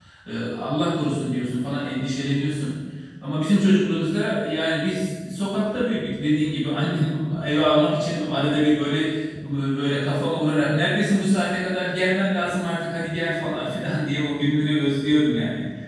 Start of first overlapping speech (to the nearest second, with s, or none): none